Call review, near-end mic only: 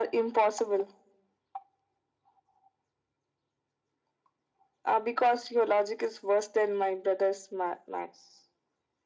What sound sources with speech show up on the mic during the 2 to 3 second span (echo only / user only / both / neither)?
neither